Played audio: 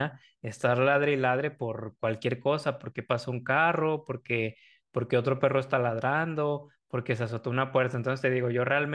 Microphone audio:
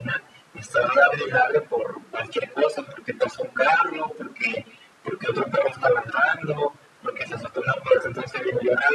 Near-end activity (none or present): none